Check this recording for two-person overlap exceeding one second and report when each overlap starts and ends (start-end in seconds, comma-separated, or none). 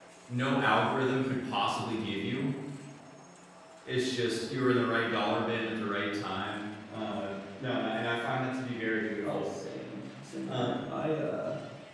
none